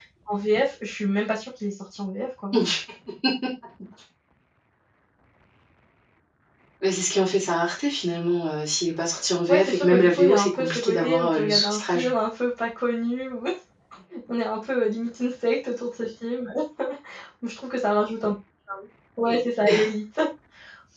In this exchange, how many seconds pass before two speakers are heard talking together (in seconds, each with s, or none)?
9.5 s